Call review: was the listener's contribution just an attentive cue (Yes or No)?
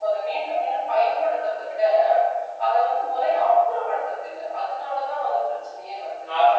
No